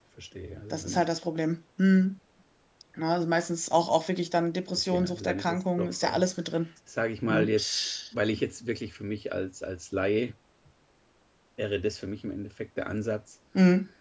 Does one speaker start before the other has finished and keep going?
Yes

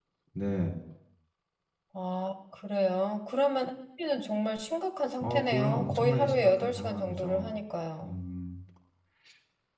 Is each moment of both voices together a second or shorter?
No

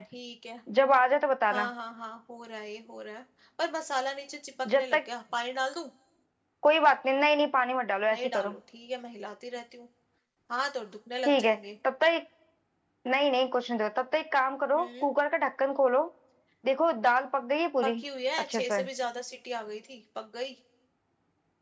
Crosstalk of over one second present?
No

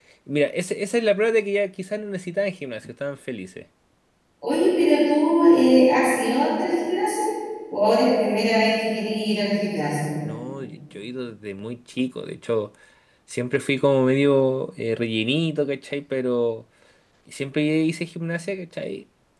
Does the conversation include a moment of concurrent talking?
No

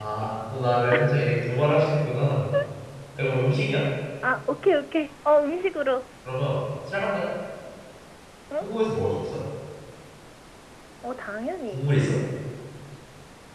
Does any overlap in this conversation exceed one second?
No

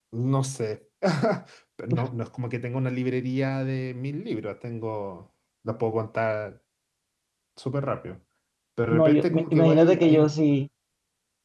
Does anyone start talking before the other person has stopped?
Yes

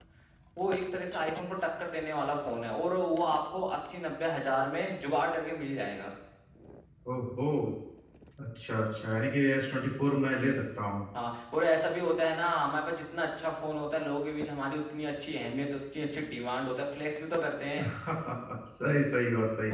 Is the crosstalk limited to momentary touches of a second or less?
Yes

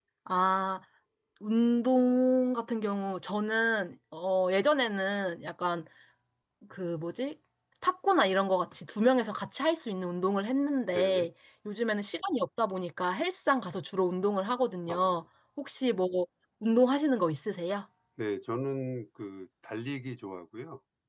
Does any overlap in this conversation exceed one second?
No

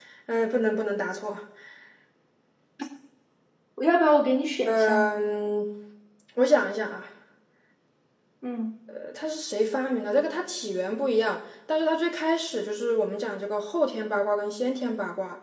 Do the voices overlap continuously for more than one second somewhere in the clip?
No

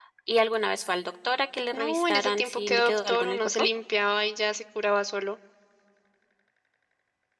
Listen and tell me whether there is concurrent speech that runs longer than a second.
Yes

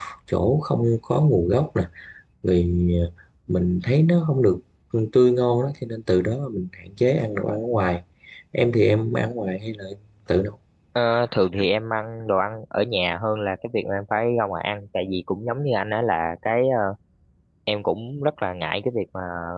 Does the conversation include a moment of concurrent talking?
No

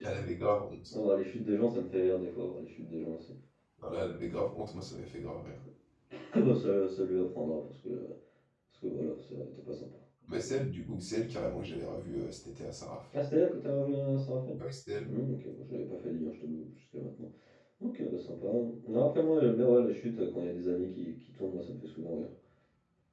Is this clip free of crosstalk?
Yes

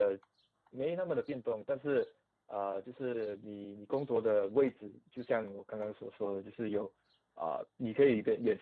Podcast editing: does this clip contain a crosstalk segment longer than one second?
No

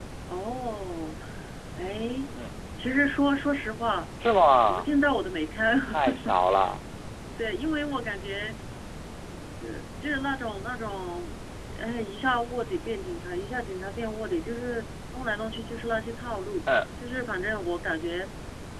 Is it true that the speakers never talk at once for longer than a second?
Yes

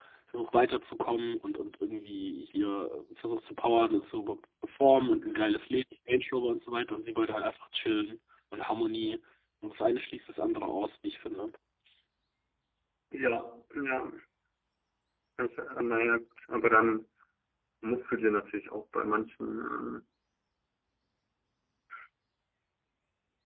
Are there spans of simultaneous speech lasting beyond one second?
No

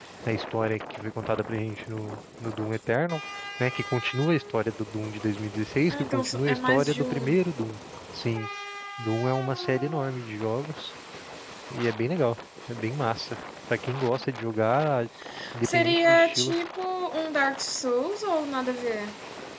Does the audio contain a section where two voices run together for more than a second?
Yes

